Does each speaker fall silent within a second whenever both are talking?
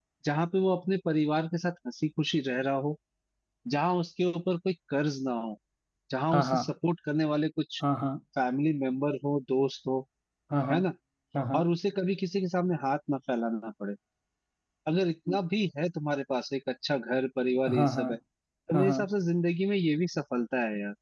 Yes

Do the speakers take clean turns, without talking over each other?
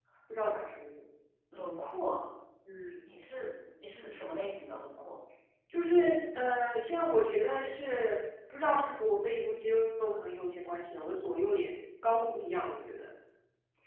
Yes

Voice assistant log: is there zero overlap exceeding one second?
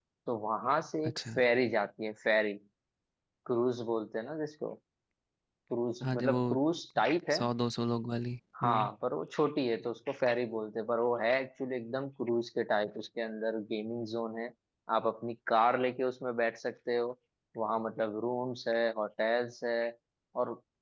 Yes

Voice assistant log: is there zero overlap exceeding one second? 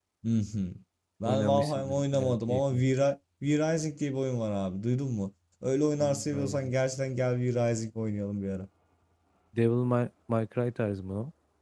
No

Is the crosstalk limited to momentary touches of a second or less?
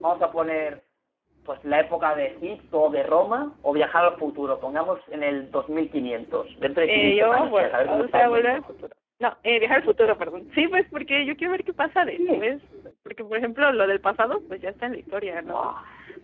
No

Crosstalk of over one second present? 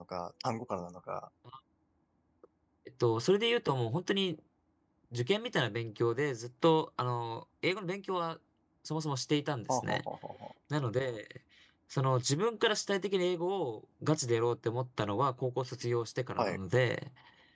No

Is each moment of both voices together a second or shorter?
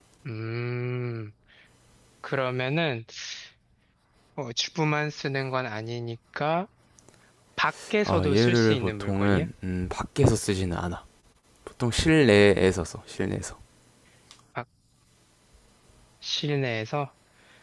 No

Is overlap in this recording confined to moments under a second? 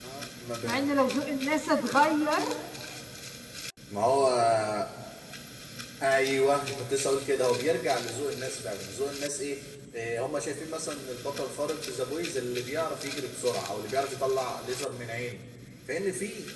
Yes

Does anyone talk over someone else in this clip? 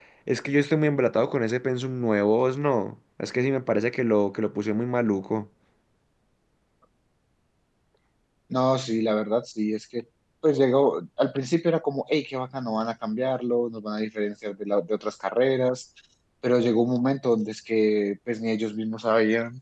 No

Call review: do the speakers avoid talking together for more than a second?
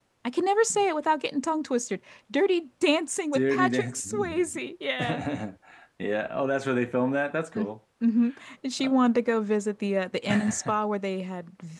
No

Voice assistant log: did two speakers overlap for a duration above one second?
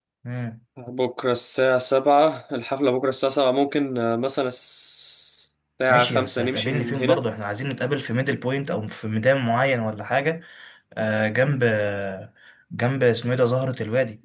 Yes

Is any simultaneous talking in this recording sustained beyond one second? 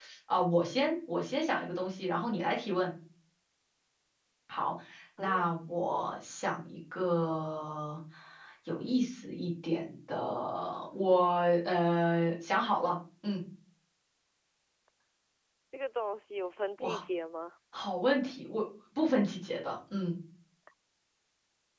No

